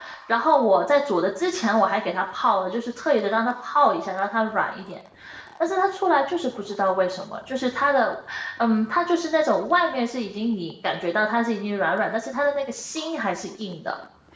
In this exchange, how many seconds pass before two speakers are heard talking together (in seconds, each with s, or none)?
none